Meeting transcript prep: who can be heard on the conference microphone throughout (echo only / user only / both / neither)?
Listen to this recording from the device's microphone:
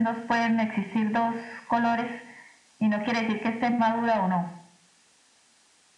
echo only